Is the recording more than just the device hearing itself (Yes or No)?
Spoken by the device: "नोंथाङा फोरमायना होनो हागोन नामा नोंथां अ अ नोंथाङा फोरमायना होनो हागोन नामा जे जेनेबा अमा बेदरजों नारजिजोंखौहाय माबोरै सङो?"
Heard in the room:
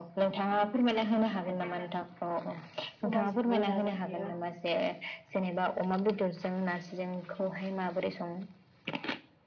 Yes